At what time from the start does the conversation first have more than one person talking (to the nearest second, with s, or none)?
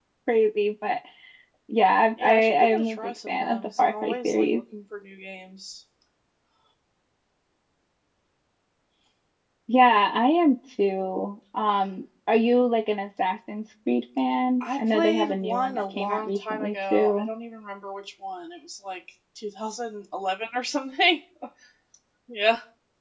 2 s